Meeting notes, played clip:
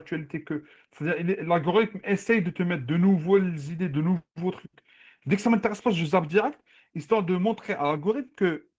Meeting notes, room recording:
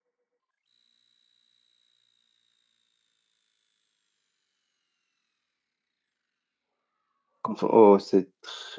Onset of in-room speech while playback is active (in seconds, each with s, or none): 7.4 s